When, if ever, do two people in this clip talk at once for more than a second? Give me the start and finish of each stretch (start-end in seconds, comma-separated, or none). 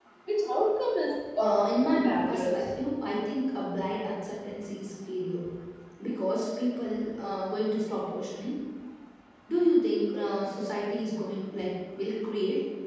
1.4-2.6